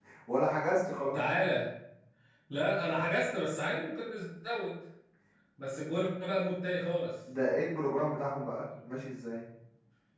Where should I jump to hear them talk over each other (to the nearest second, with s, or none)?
none